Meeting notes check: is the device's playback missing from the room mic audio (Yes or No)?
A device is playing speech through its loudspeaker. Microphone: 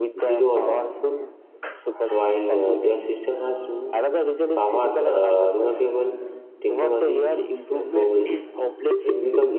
No